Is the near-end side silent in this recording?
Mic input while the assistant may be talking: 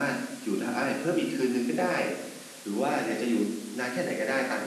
Yes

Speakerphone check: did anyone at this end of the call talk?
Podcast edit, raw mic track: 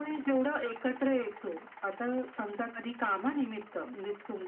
No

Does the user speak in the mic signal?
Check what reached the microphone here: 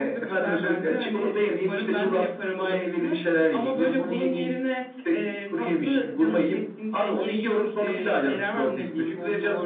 No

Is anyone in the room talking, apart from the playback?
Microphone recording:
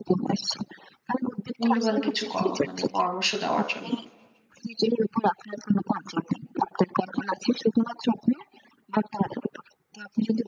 Yes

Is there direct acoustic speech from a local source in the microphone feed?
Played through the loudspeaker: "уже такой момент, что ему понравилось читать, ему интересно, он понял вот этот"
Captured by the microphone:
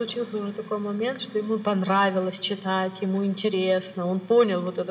No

